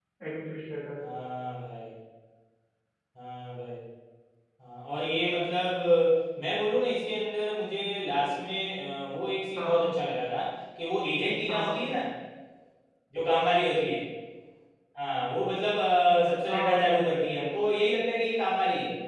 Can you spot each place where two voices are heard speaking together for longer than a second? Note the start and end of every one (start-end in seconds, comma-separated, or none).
none